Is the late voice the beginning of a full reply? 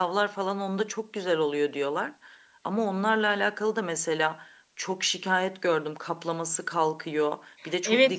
No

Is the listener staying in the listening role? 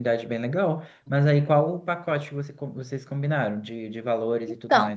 No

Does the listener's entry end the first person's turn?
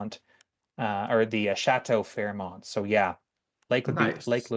No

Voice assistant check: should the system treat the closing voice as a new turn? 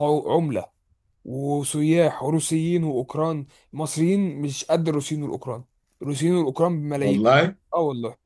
No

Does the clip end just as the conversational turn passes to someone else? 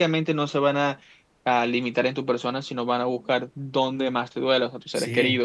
Yes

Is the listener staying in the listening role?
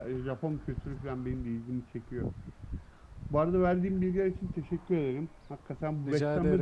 Yes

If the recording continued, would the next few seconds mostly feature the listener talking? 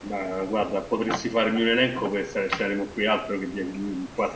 No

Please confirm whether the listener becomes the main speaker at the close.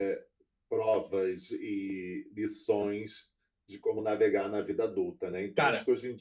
No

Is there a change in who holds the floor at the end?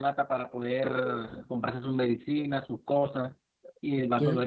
No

